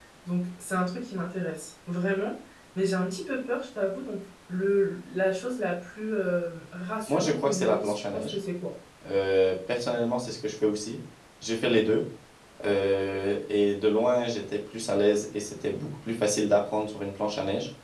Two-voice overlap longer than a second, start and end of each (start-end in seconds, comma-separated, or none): 7.1-8.3